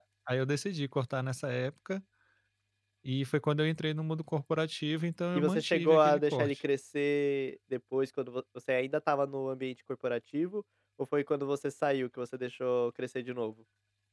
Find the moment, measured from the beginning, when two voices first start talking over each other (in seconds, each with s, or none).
5.3 s